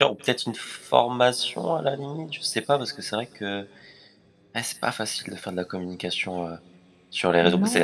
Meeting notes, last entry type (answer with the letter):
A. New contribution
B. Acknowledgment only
A